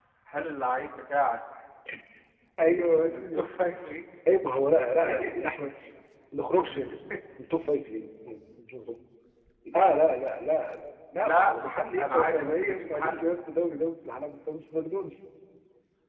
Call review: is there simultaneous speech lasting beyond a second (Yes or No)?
Yes